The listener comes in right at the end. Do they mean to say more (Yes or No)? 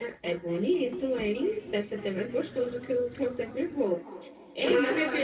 Yes